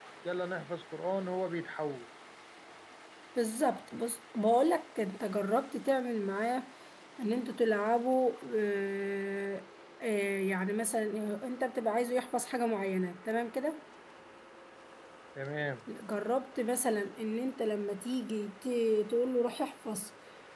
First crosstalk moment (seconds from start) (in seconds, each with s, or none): none